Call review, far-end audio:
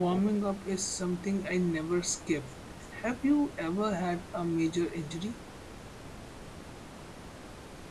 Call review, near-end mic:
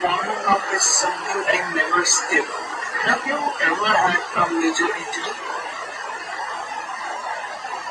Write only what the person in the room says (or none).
none